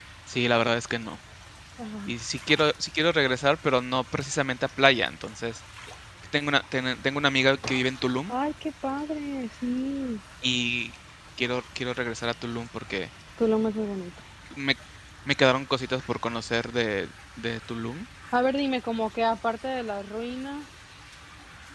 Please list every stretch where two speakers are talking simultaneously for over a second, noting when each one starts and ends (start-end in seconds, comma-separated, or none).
none